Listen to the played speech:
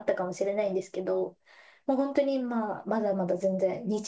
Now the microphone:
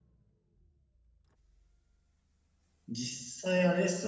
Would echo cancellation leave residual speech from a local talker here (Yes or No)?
Yes